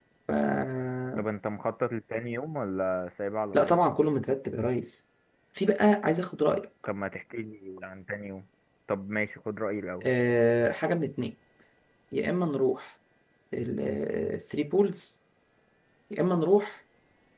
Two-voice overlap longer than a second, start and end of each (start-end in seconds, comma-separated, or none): none